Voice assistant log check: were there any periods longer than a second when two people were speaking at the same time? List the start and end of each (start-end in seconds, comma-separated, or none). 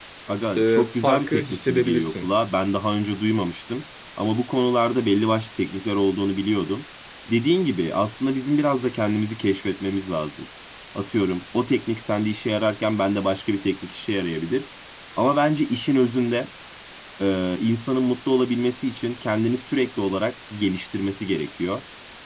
0.6-2.3